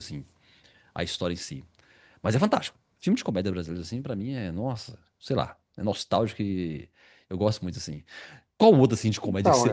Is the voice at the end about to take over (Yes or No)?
No